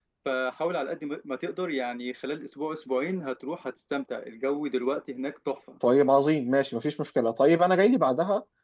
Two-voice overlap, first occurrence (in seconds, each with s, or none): none